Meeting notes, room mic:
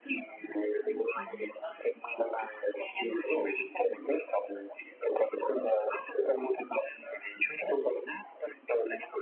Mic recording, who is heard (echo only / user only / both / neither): both